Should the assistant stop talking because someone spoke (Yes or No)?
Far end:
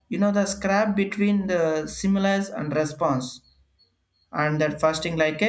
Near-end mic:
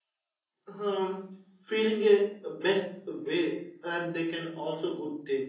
Yes